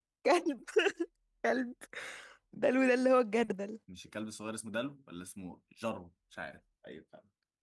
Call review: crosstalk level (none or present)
none